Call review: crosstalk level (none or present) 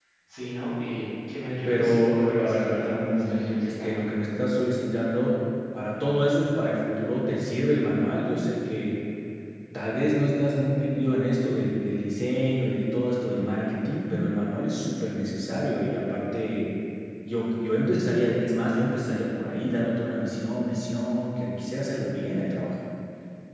present